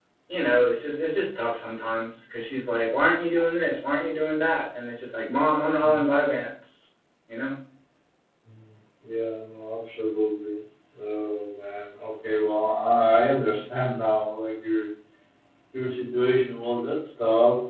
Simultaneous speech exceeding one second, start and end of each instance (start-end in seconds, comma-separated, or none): none